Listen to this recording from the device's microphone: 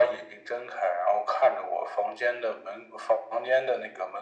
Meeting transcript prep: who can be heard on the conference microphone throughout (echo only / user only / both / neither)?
echo only